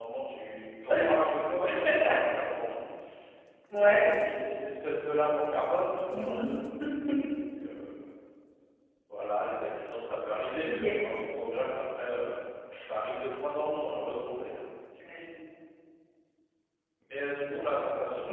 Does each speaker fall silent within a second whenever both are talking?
Yes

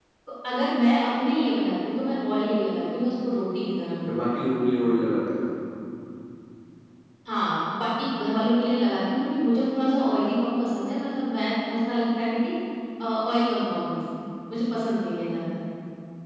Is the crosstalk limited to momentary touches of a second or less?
Yes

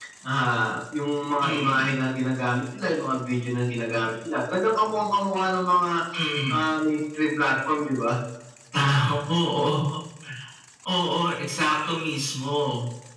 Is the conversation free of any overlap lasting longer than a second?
Yes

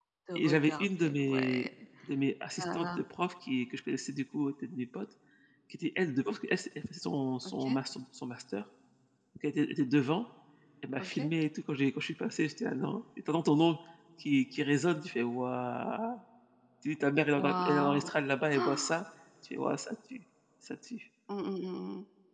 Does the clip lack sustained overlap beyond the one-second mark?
No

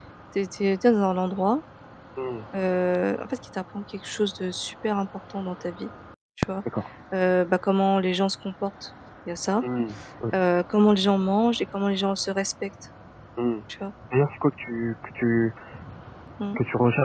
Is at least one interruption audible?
No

